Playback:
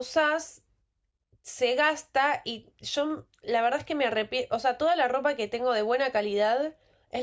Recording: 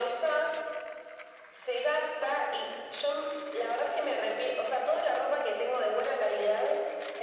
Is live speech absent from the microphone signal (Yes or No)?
Yes